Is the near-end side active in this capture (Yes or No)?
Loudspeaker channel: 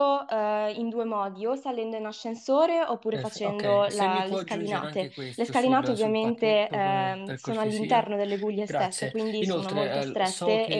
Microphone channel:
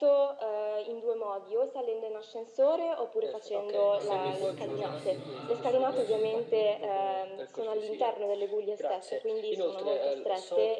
Yes